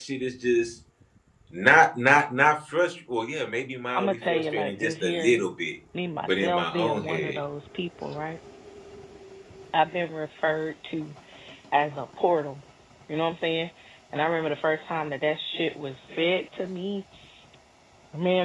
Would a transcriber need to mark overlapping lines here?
Yes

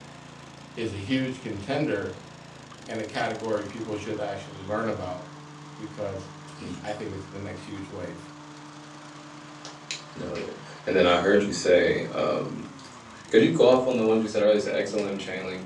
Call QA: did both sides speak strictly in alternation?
Yes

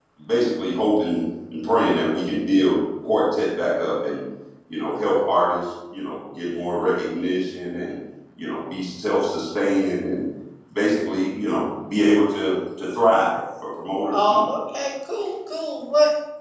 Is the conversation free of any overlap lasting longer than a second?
Yes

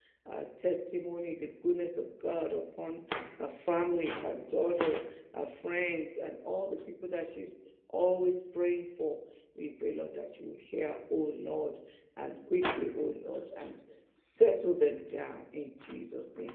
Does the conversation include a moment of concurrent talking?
No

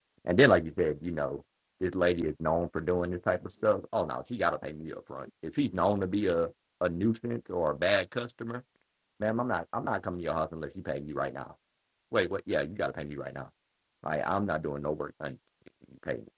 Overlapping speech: No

